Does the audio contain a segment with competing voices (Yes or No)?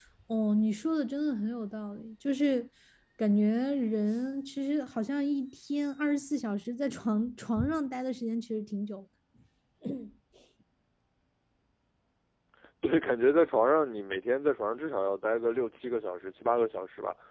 No